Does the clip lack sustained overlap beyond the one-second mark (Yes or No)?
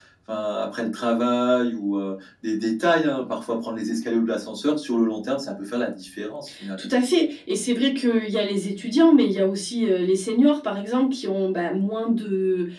Yes